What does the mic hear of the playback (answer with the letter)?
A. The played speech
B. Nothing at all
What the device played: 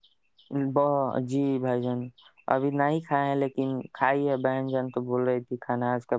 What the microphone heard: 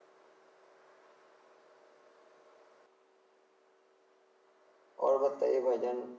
B